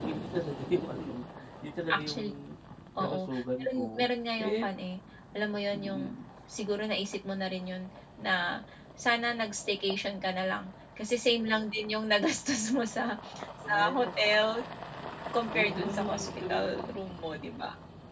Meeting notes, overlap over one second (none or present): present